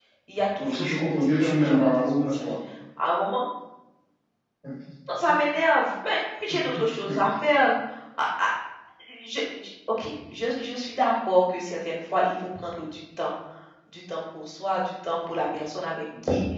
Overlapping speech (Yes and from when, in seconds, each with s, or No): Yes, from 0.6 s